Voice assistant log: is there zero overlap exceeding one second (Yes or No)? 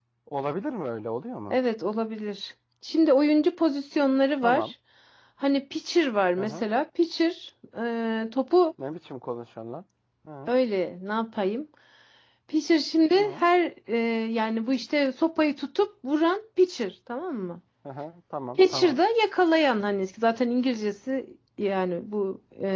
Yes